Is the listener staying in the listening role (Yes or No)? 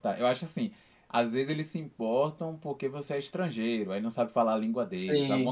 Yes